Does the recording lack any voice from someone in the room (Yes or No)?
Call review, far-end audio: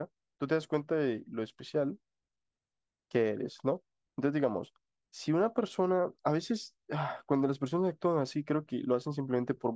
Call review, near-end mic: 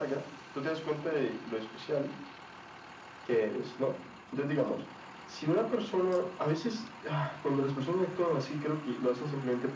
Yes